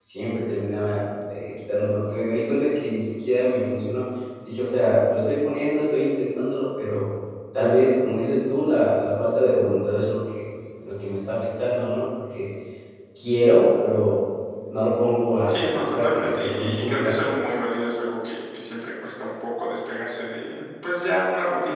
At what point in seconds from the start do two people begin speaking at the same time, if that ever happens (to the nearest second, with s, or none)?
15 s